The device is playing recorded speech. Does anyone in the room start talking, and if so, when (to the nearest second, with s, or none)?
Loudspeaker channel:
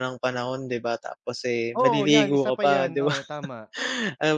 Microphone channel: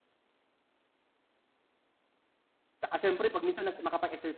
3 s